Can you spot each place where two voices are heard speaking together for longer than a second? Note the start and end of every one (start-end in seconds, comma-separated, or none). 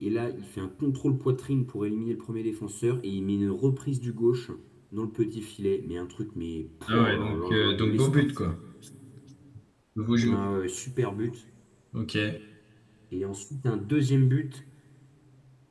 6.9-8.2